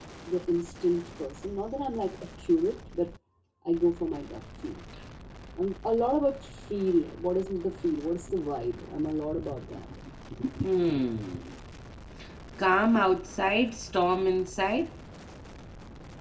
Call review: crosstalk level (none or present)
none